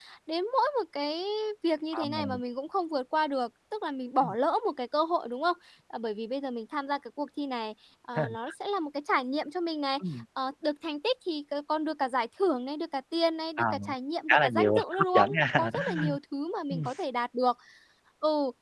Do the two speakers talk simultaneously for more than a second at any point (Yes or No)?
Yes